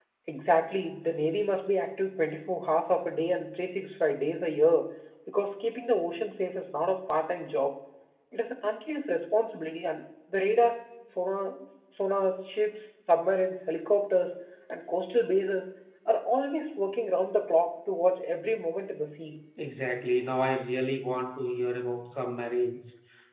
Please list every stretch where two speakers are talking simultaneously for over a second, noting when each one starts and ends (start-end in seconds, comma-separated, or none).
none